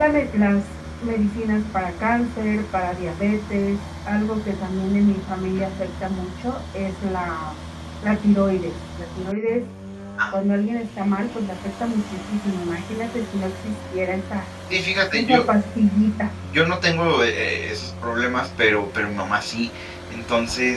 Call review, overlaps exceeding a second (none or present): none